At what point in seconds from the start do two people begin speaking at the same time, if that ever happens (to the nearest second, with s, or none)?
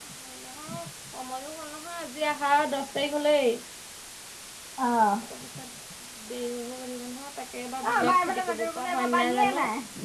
8 s